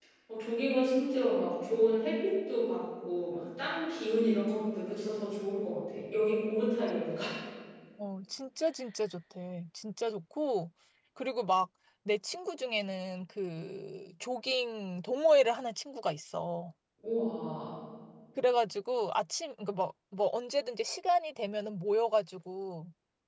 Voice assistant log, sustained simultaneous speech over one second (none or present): none